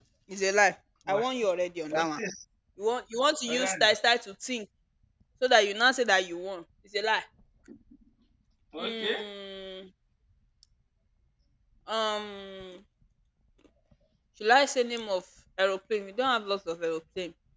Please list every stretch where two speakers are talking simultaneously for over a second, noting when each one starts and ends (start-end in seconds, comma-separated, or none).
none